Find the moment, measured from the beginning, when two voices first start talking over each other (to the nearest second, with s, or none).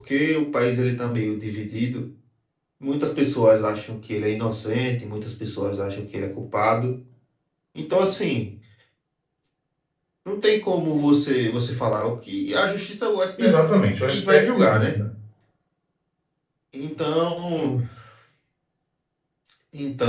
13 s